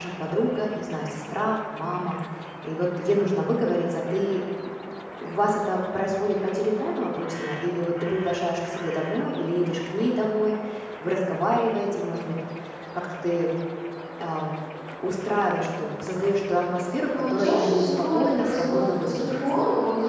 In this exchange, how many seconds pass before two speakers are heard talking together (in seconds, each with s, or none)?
17.1 s